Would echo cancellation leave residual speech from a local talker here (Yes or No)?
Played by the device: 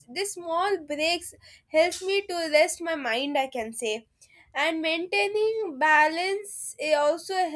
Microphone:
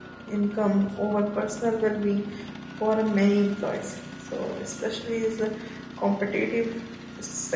Yes